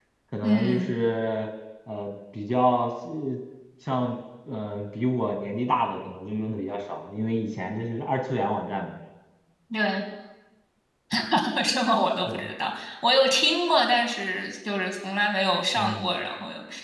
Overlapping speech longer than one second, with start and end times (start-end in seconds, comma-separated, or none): none